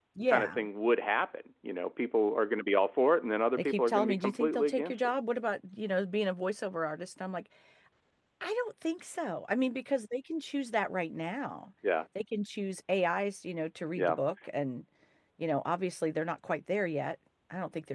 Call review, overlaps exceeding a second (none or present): present